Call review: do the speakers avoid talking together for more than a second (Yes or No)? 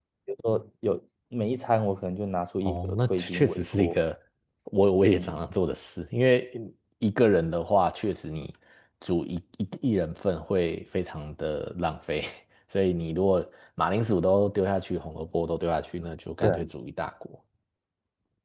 No